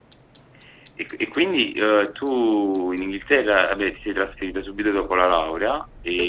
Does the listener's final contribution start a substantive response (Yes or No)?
Yes